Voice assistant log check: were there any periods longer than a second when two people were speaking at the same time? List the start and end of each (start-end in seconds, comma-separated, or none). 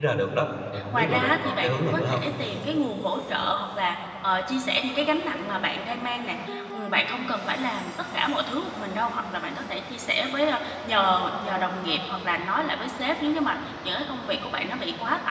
0.9-2.2